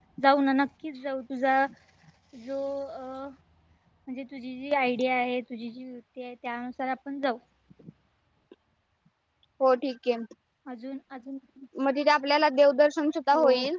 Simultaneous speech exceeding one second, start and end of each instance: none

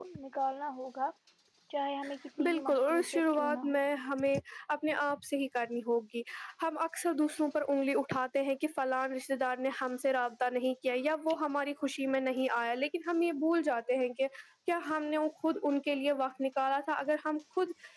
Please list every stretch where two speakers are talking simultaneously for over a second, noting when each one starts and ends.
2.4-3.8

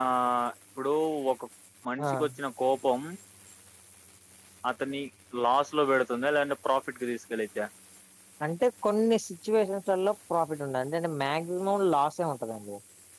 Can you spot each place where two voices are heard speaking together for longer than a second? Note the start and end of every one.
none

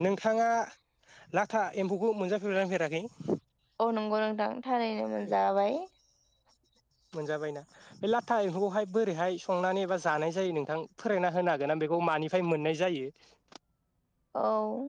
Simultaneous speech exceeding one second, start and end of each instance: none

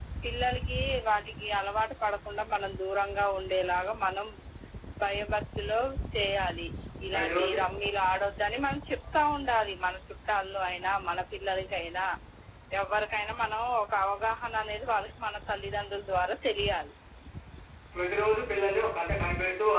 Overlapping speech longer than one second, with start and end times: none

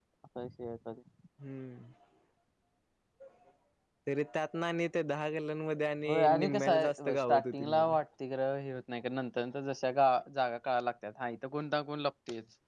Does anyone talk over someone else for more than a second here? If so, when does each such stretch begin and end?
6.1-8.0

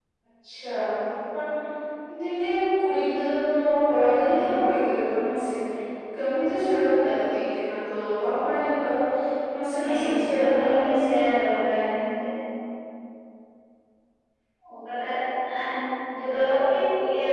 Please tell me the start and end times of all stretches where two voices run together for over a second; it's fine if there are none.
9.8-11.1

